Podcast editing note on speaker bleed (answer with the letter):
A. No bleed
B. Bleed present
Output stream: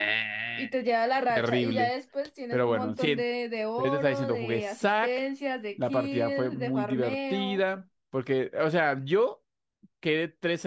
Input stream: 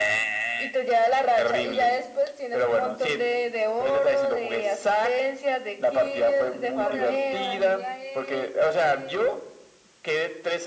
B